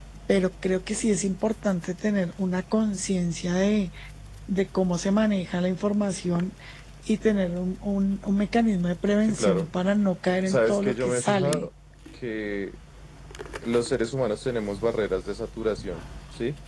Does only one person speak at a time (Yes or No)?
No